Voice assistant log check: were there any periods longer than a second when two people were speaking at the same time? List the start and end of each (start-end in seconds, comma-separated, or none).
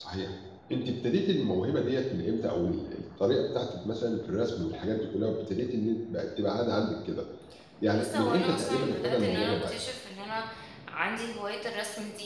7.9-9.8